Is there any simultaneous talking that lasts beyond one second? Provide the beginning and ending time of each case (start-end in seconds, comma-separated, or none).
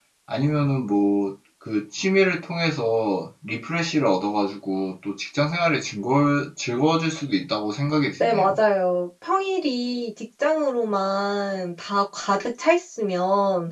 none